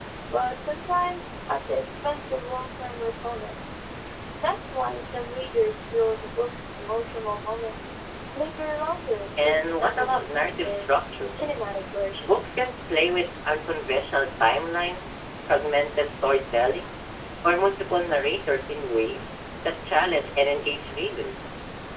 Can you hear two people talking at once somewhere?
Yes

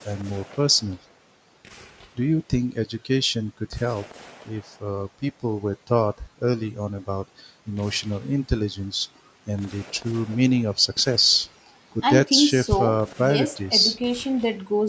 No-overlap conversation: No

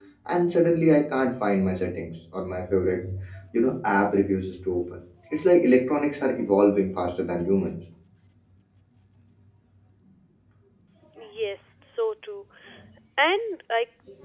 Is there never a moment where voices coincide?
Yes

